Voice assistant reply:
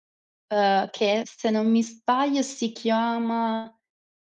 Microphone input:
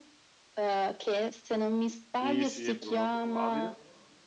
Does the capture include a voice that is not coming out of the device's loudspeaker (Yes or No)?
Yes